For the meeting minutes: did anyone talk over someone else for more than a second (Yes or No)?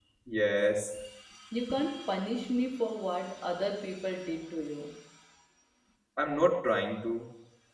No